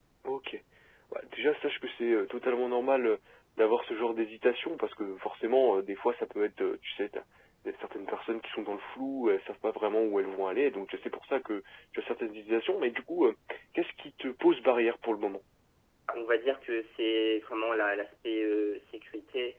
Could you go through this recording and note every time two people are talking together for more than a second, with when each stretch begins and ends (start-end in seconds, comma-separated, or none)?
none